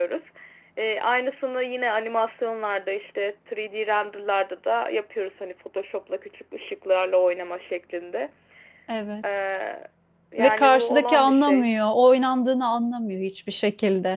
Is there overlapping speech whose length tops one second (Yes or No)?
Yes